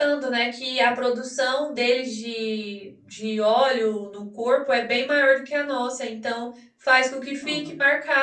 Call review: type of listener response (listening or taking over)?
listening